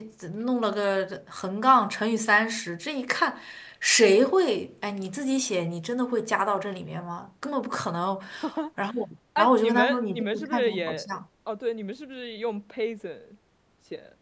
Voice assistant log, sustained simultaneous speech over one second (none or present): present